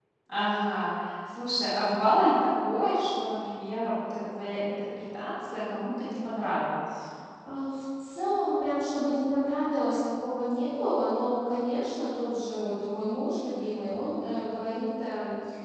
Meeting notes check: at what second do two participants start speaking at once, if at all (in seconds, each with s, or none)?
none